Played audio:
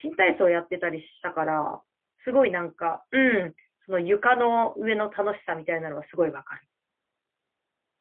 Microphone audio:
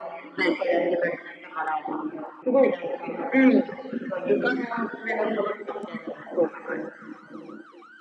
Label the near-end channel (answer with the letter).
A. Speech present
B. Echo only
B